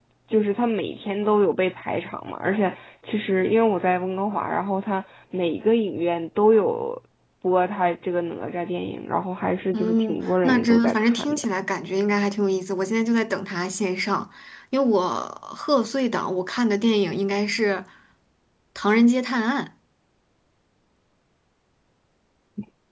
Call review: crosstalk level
present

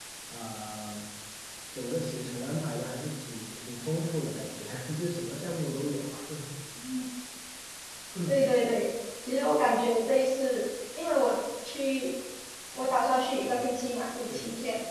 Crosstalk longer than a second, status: none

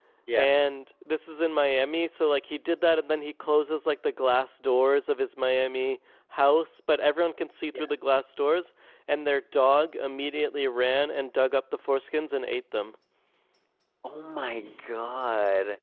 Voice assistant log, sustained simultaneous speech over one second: none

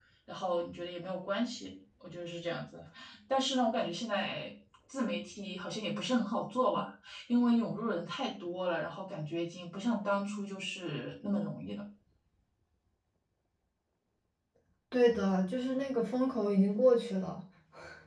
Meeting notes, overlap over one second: none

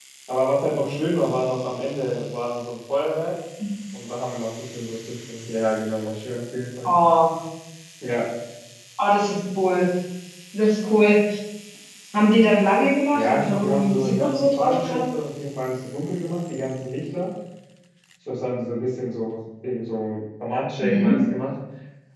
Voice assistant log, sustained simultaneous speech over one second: present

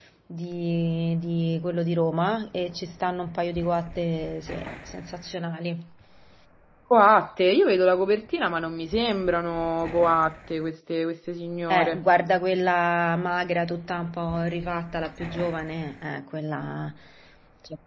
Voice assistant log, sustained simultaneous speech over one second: none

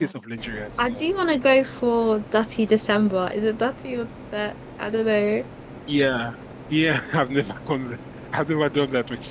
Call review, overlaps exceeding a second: none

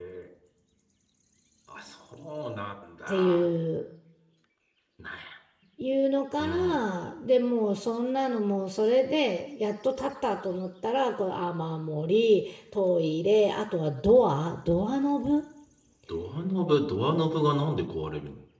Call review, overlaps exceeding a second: none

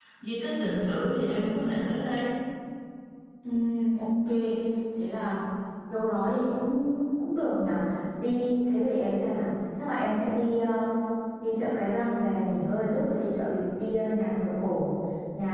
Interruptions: none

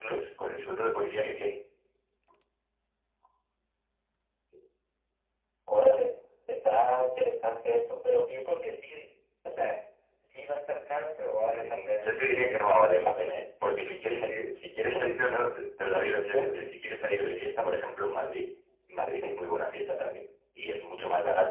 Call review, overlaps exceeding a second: present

